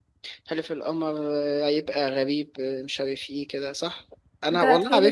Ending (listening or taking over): taking over